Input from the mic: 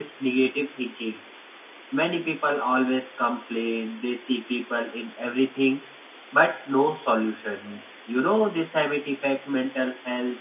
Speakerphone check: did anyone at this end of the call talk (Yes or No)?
Yes